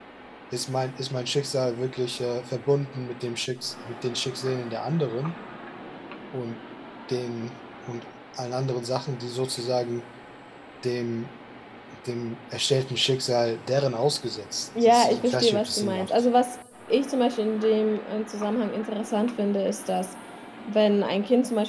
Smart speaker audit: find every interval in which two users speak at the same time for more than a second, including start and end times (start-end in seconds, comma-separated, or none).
14.8-16.1